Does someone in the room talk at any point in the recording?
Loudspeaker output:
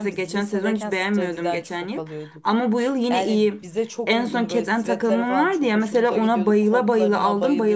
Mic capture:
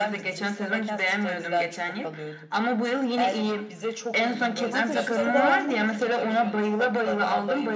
Yes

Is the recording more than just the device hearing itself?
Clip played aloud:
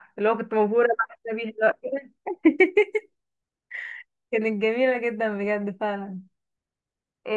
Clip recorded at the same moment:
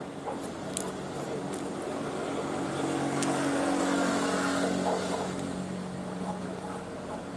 No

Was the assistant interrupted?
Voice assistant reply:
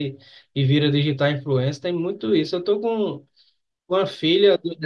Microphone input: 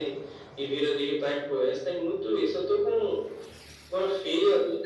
No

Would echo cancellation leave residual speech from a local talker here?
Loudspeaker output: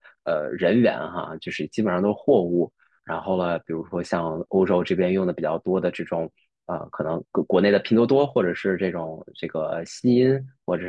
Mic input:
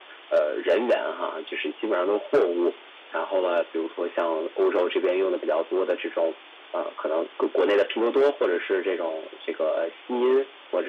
No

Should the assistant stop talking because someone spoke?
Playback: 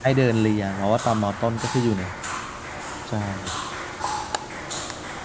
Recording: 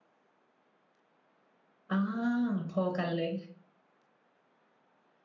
Yes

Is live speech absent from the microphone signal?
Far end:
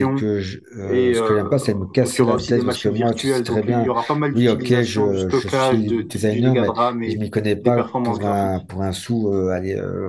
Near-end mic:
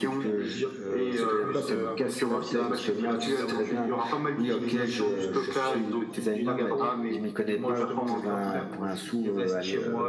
No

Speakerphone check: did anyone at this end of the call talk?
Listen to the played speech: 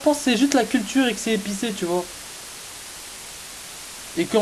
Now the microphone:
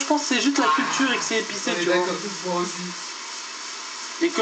Yes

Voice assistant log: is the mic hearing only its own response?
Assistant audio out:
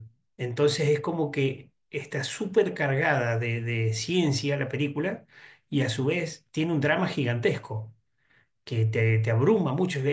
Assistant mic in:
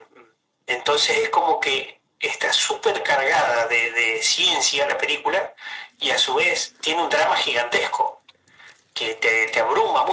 Yes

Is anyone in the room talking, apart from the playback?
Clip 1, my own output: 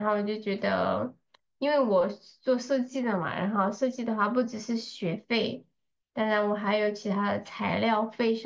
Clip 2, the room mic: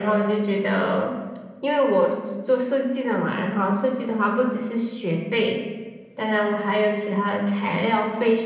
No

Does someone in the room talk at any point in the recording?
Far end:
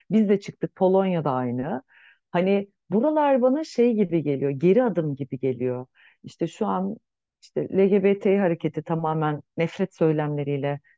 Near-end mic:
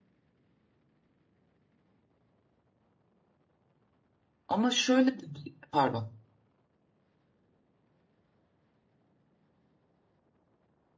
Yes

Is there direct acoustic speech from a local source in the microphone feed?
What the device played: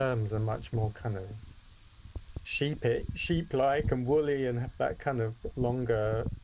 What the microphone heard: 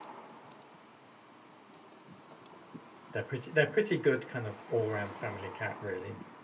Yes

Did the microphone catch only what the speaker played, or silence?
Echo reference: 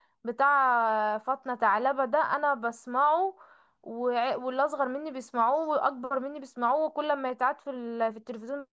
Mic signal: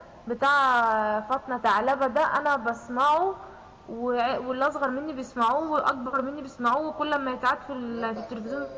No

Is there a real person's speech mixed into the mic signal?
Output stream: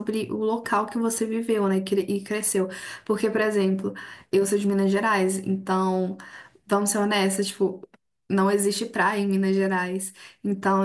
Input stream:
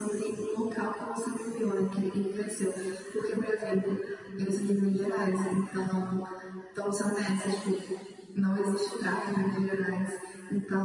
No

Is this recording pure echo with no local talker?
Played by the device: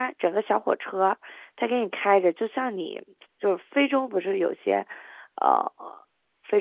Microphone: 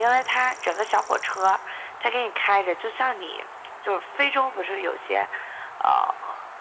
Yes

